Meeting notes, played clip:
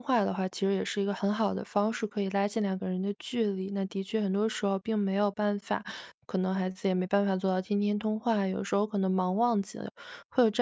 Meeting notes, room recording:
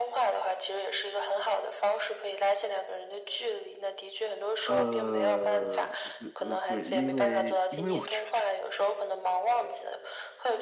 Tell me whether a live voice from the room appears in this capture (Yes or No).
Yes